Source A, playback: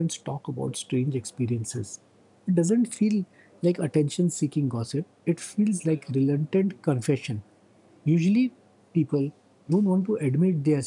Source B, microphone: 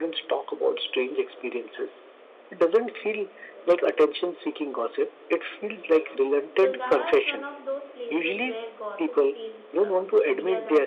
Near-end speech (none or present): present